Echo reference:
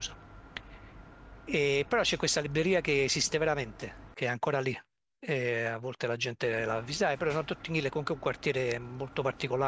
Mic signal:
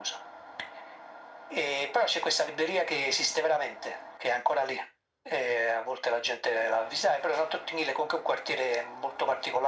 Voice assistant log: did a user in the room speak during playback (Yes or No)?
No